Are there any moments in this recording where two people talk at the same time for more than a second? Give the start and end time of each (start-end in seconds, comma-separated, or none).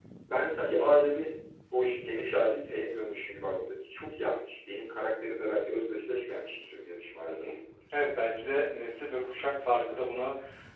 none